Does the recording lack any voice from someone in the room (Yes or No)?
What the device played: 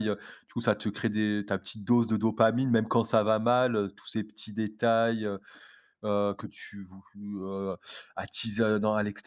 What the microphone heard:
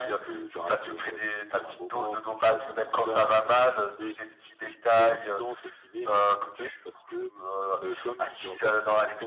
No